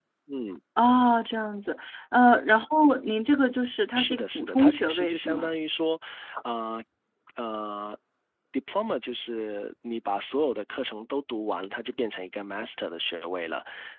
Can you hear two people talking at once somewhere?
Yes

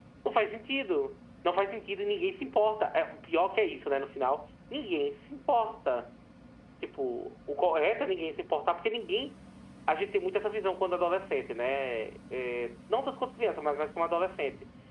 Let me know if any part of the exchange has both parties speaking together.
No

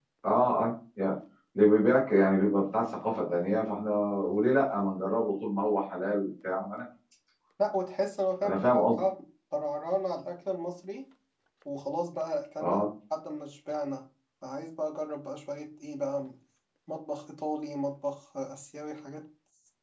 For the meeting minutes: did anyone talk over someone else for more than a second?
No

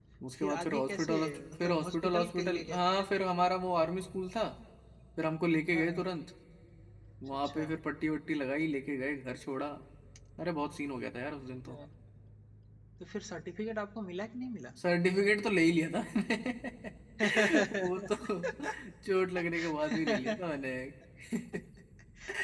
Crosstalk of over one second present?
Yes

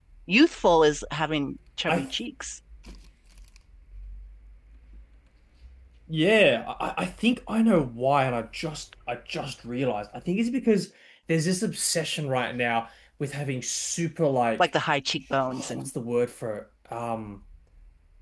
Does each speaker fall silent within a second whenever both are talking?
Yes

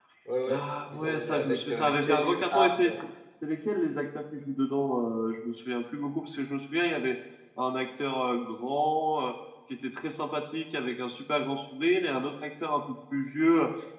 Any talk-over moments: Yes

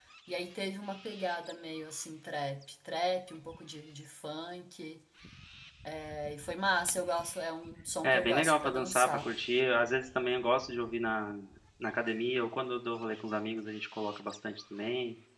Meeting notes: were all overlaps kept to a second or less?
No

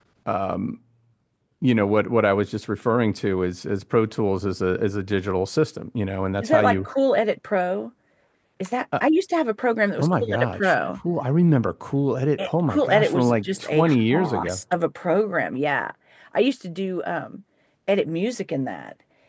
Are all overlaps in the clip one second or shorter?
No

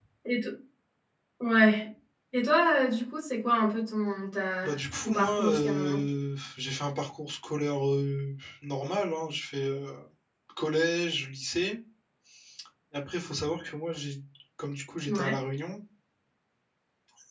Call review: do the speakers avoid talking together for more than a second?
No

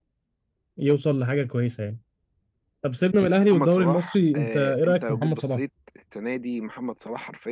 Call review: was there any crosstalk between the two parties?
Yes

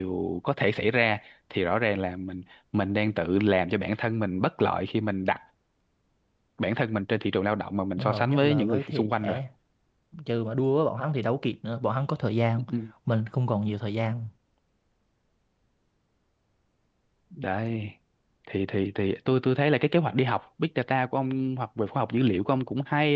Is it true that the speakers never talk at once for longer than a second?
No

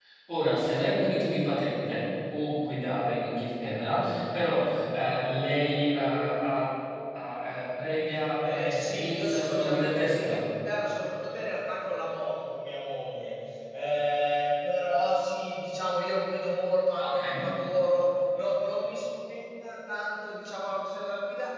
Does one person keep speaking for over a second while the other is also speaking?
Yes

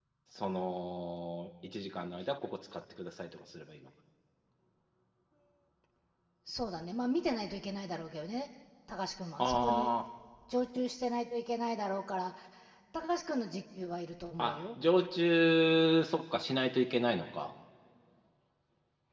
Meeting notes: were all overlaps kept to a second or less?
Yes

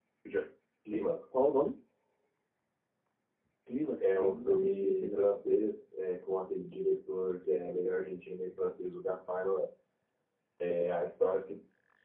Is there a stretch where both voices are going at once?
Yes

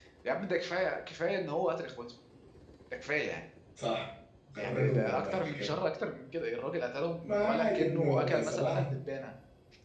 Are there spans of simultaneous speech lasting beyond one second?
Yes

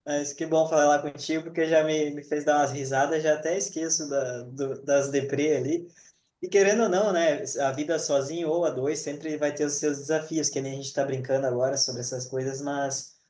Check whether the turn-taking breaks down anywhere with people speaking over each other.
No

